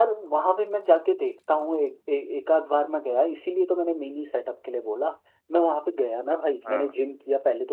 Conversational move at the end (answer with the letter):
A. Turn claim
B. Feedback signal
B